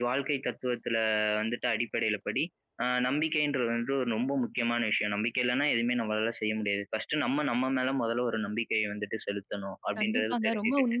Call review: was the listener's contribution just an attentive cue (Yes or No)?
No